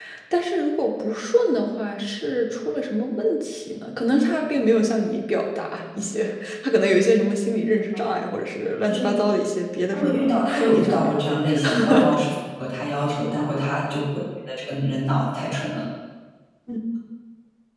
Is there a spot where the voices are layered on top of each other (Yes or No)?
Yes